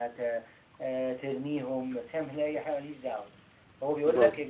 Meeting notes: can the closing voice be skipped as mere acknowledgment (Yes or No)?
Yes